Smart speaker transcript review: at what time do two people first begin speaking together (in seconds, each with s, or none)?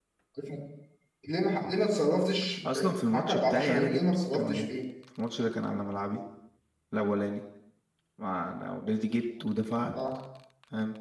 3.1 s